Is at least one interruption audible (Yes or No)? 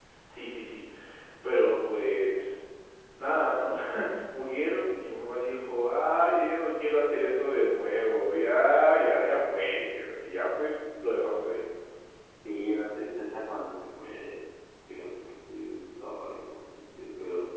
No